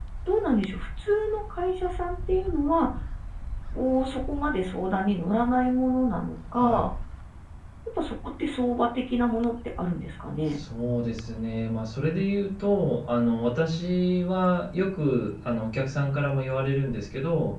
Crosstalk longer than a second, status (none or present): none